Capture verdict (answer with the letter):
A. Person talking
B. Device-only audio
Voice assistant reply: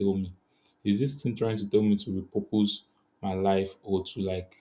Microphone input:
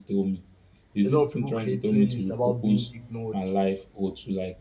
A